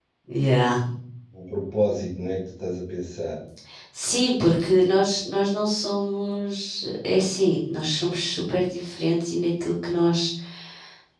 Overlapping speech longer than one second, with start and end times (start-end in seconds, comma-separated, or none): none